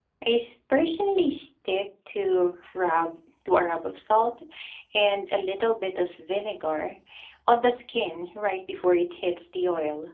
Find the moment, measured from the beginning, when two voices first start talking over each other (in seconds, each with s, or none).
none